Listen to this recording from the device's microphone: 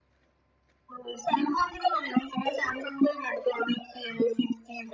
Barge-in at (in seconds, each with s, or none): none